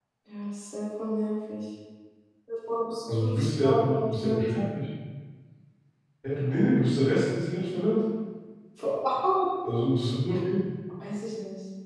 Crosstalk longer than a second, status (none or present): present